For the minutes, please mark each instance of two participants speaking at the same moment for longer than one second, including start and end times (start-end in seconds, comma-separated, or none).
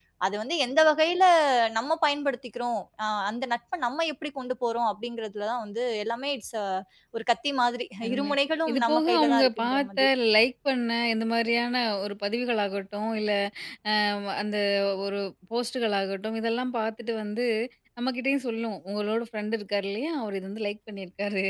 8.7-10.0